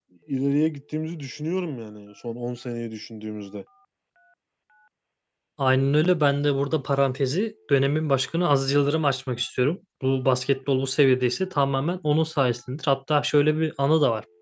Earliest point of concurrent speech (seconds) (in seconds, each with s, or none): none